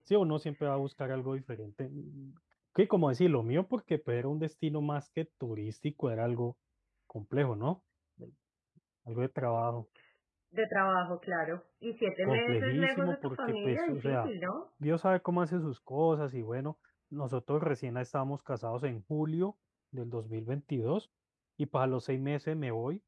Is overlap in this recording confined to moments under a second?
No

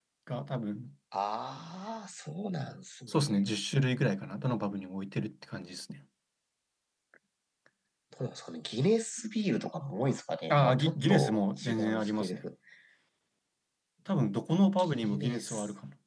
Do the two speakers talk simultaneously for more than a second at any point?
Yes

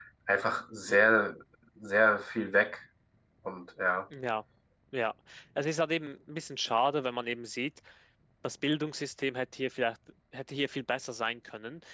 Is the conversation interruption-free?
Yes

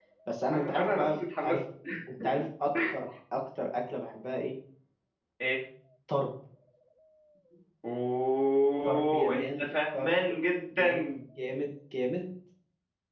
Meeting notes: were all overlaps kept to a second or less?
No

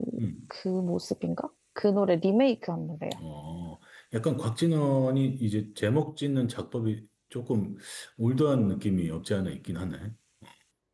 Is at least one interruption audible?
No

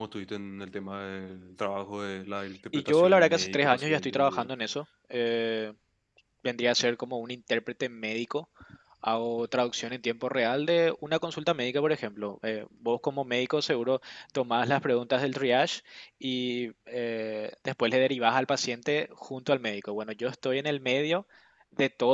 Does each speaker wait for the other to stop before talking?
No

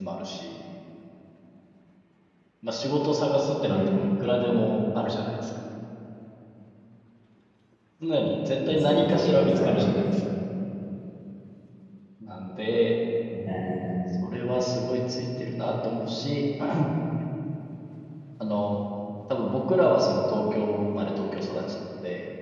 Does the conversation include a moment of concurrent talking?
Yes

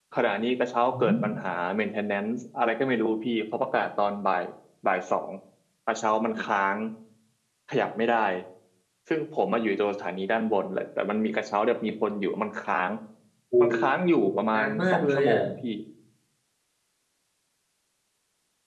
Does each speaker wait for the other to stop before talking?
No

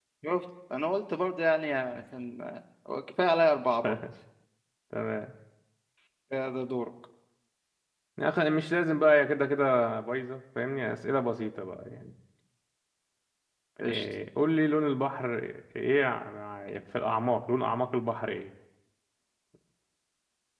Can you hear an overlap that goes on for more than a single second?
No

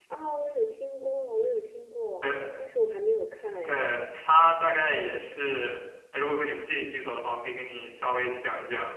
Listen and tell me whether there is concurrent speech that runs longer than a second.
No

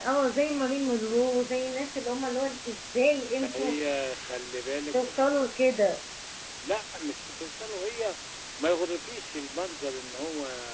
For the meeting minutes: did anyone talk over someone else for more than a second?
No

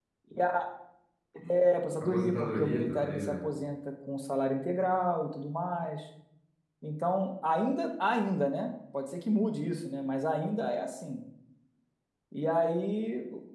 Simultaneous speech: Yes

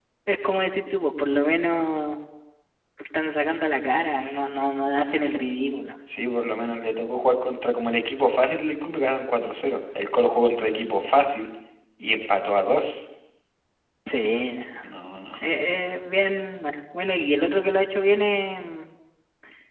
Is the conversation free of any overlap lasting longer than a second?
Yes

